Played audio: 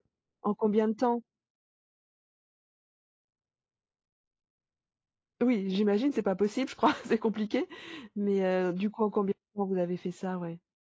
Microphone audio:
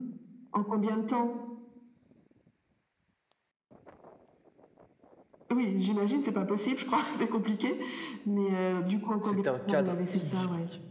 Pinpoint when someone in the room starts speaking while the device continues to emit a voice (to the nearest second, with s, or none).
9 s